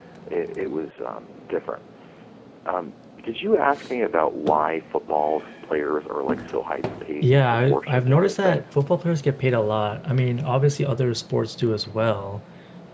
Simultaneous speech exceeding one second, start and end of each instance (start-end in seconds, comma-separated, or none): 7.2-8.6